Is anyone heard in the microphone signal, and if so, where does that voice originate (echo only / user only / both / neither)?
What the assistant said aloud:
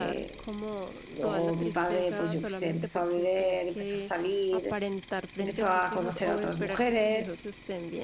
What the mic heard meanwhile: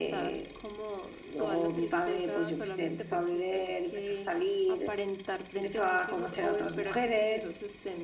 echo only